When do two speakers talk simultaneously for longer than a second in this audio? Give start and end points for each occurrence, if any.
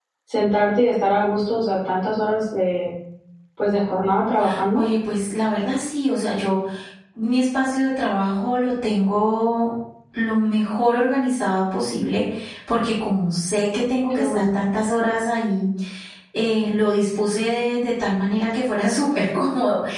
none

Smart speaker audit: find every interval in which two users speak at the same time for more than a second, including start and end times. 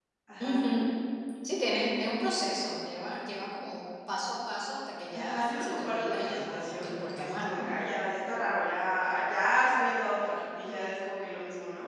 5.1-7.6

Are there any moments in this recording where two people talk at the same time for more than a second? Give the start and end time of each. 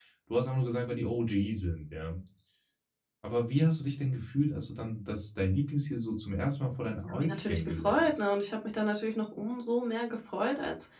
7.0-8.2

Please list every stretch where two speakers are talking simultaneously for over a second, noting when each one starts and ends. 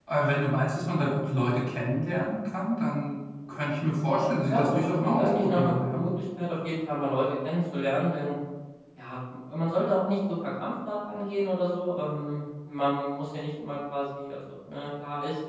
4.5-6.0

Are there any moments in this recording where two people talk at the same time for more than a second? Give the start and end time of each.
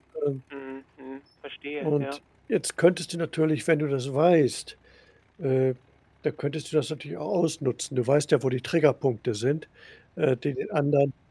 none

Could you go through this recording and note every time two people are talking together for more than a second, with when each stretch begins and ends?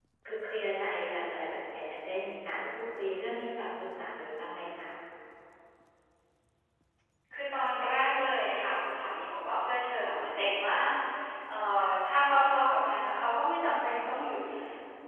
none

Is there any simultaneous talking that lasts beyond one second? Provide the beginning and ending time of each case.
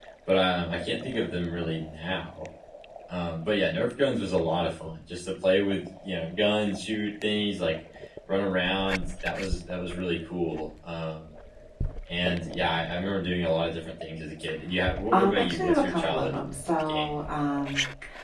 15.1-16.4

